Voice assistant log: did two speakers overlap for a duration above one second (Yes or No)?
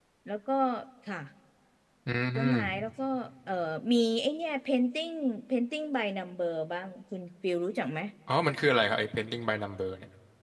No